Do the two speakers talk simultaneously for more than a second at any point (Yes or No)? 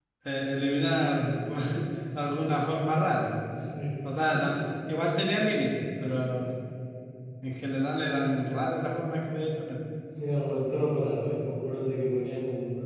No